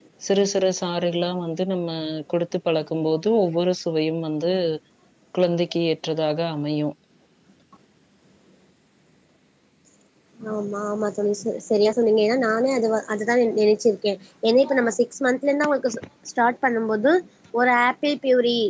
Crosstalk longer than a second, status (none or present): none